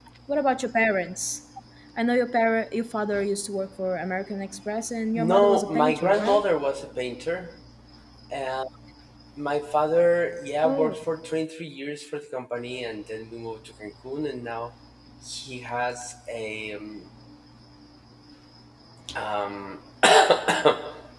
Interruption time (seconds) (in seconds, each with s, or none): 5.2 s